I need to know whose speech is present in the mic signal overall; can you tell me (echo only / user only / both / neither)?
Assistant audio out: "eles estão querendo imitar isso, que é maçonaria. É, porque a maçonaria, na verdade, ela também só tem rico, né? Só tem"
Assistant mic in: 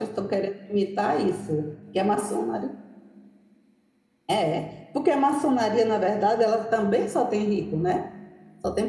echo only